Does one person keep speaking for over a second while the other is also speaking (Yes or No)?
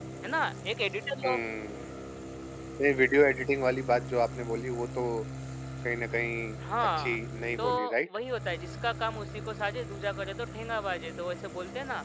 No